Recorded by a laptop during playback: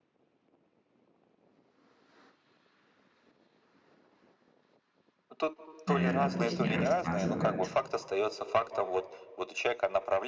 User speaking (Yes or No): Yes